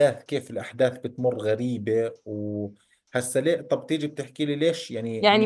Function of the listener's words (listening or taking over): taking over